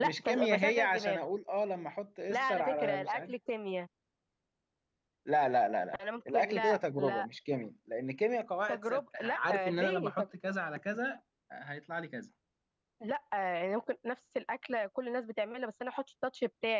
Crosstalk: present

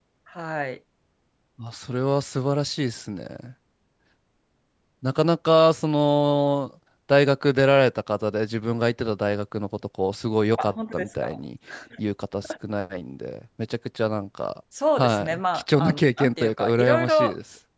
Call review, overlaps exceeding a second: present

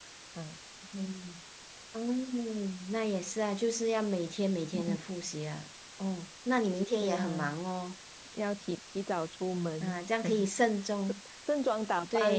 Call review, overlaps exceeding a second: none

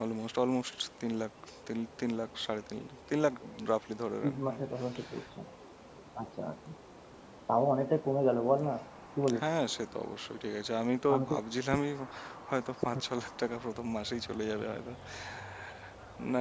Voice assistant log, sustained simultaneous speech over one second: none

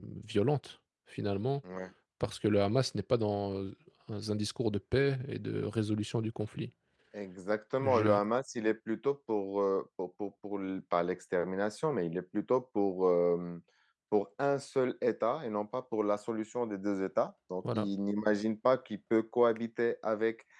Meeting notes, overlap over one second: none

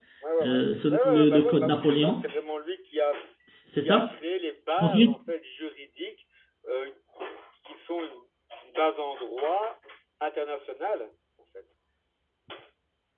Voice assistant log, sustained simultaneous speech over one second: present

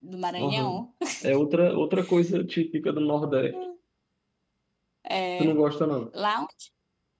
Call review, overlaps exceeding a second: none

